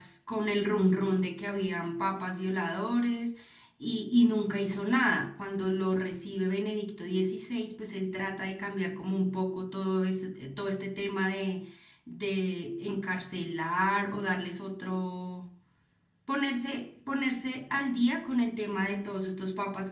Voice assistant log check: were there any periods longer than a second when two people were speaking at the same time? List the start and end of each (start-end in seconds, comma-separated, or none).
none